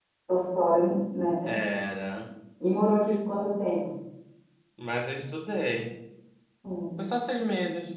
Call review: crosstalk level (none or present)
none